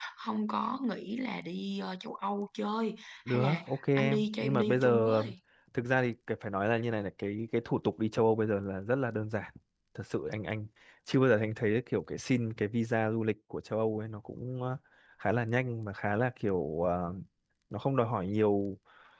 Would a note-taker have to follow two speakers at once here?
Yes, from 3.3 s

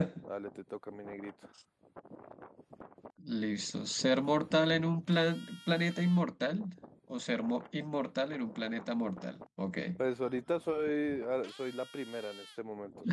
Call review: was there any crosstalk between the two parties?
No

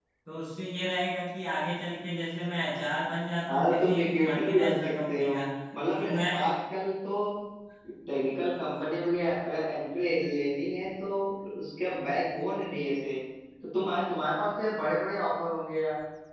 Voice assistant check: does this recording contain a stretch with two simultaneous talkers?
Yes, from 3.5 s

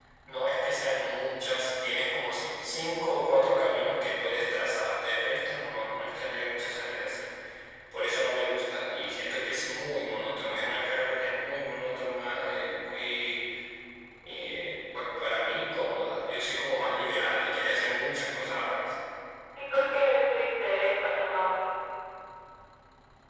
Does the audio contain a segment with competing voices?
No

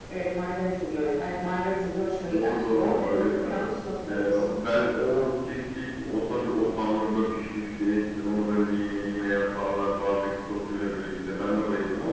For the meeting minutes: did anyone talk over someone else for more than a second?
Yes, from 2.3 s

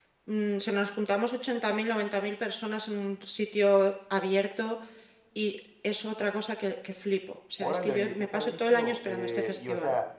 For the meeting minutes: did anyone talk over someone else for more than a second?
Yes, from 7.6 s

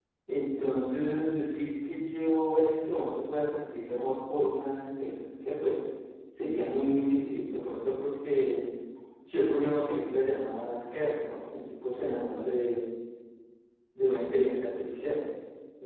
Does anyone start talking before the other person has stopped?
No

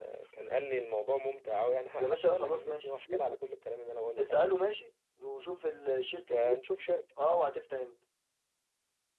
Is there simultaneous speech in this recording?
Yes, from 2.0 s

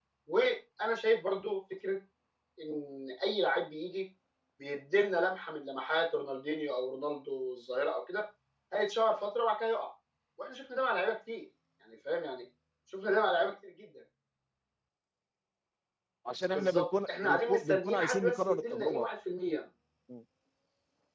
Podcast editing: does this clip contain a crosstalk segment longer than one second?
Yes, from 16.5 s

